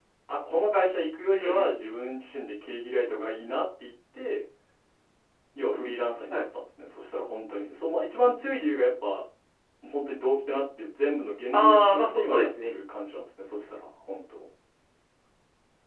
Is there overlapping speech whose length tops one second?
Yes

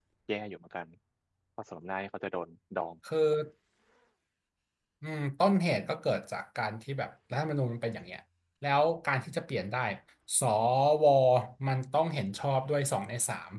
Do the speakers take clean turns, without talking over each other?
Yes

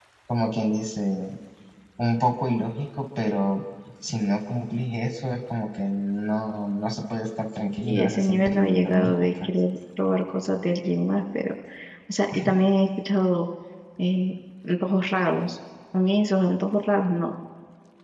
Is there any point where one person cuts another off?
Yes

